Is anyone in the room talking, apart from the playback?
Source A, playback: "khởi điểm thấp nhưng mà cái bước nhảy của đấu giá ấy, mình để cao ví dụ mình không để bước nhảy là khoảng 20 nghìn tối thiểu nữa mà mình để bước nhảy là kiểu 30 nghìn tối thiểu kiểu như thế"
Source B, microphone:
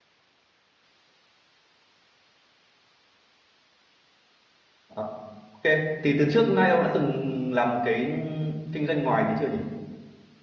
Yes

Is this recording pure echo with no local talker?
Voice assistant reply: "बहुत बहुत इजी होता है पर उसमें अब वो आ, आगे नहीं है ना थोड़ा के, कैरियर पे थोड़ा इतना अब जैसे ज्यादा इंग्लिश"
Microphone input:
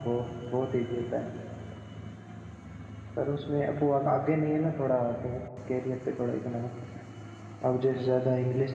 Yes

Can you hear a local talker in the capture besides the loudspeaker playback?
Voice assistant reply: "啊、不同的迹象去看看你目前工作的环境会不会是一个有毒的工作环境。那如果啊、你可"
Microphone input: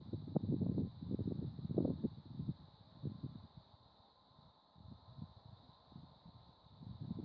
No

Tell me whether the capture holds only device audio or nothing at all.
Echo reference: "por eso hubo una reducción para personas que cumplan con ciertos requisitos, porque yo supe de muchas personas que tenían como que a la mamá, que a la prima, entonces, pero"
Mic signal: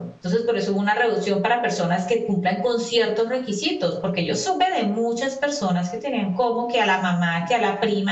Yes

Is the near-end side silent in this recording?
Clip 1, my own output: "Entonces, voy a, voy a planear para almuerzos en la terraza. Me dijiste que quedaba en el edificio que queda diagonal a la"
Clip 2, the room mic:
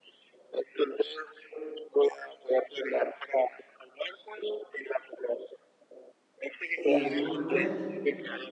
No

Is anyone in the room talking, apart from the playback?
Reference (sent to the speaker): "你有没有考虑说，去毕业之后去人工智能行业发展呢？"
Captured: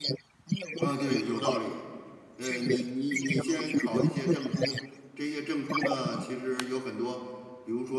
Yes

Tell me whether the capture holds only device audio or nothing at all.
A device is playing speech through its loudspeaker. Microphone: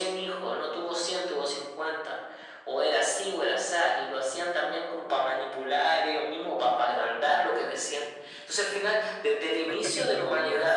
No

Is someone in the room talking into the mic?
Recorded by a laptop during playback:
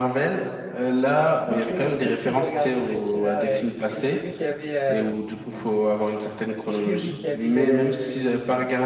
Yes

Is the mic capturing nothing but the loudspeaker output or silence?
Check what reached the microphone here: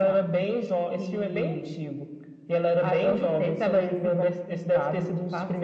Yes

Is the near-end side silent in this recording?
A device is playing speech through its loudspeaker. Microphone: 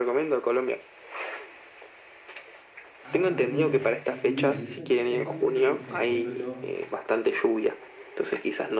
No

